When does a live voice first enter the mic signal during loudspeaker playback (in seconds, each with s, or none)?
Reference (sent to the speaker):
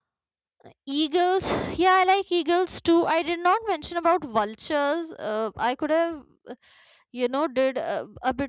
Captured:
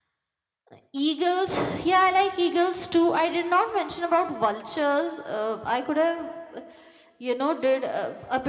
none